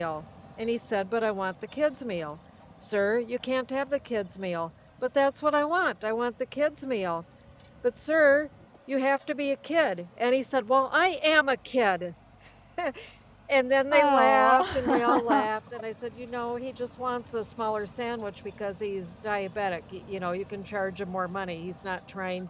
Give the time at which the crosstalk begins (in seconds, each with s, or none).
13.9 s